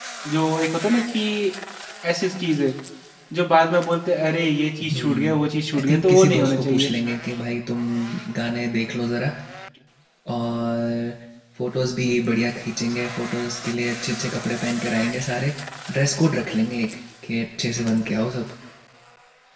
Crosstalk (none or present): present